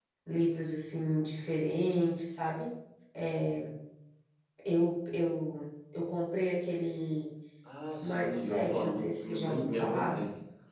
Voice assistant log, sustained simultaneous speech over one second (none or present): present